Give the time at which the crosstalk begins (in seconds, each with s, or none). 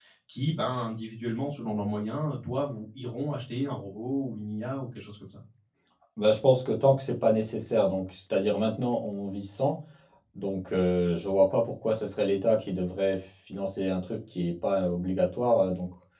none